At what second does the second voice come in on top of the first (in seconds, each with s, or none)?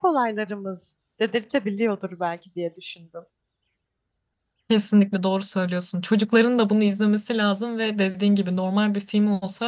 none